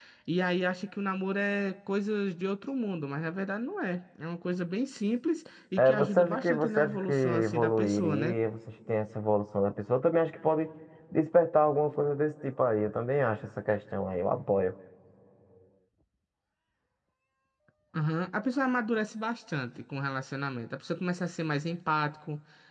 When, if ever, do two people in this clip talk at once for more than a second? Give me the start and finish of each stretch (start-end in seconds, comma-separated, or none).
5.8-8.3